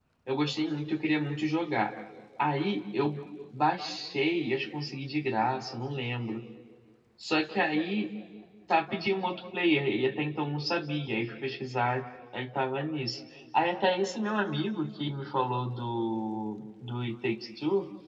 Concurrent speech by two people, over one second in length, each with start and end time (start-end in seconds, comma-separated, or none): none